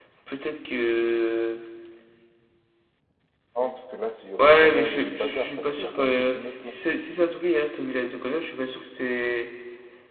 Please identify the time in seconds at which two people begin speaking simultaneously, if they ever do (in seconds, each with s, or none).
4.4 s